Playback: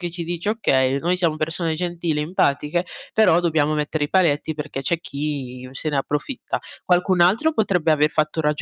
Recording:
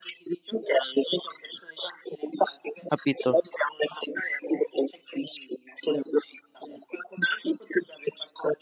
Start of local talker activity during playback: 3 s

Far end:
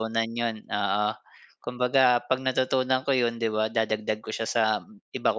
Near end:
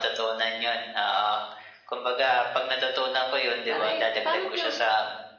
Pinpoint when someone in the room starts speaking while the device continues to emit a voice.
4 s

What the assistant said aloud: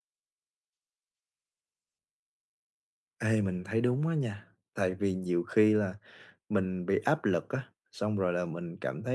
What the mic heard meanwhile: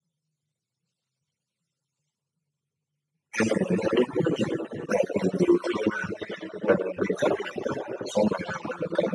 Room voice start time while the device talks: none

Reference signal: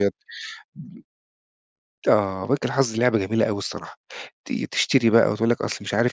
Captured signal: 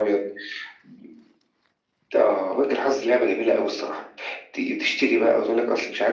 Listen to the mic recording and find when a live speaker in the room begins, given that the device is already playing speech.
none

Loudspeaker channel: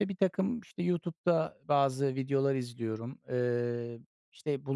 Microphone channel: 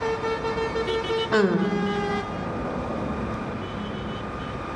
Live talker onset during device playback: 1 s

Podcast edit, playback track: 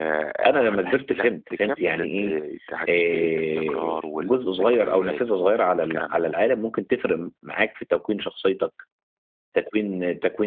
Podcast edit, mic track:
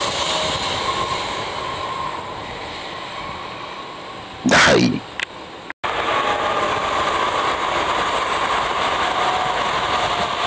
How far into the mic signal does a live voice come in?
4 s

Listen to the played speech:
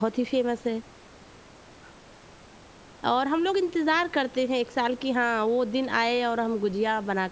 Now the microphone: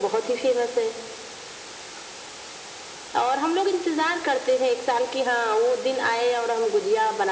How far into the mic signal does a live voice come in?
none

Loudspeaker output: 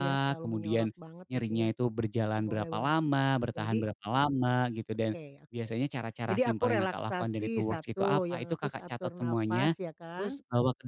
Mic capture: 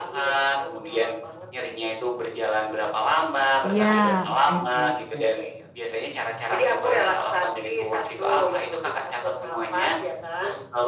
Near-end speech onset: 4 s

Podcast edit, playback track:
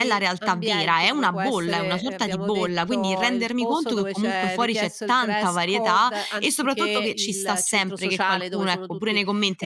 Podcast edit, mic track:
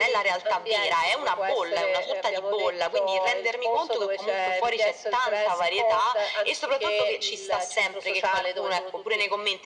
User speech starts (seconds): none

